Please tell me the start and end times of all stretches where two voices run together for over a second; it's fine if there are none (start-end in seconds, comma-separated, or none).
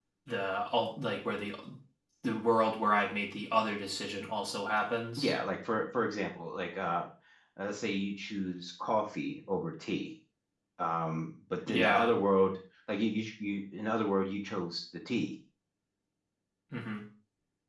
none